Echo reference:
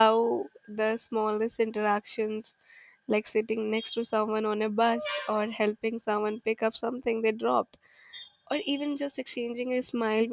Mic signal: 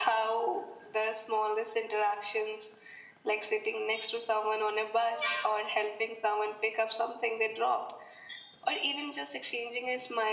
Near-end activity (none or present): none